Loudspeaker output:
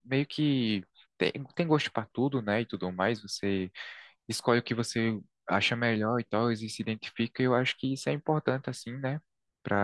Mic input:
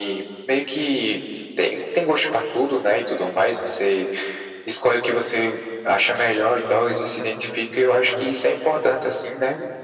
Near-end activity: present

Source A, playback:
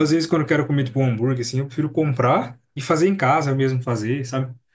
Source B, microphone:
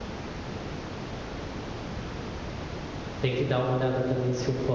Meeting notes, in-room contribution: present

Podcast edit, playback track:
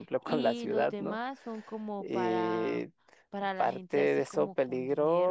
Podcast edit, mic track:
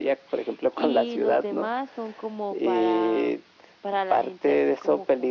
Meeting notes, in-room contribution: none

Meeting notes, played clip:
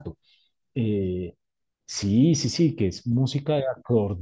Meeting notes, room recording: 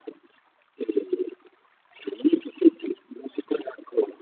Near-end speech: none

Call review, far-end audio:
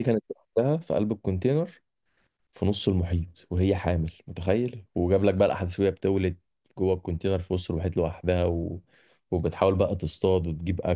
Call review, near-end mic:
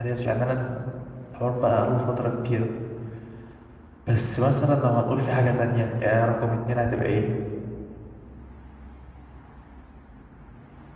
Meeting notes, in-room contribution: present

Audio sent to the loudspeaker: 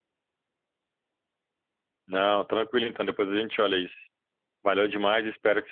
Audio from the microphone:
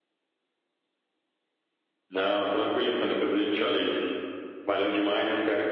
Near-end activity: none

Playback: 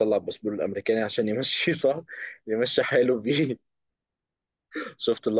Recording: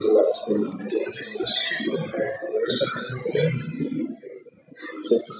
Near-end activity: none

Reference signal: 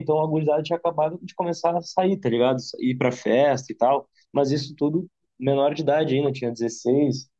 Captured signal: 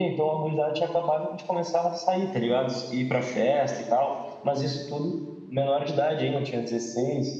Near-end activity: none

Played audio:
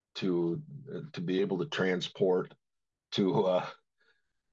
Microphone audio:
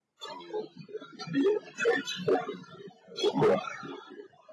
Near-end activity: none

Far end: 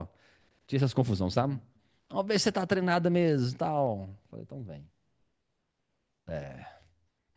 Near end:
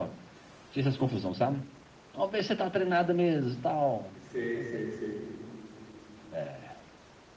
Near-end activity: present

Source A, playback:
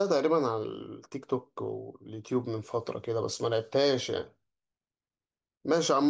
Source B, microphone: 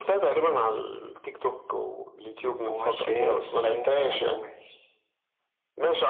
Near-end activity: present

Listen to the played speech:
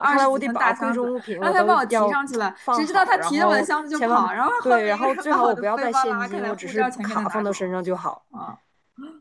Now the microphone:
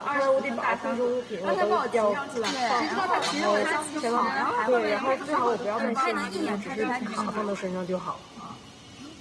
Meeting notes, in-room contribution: present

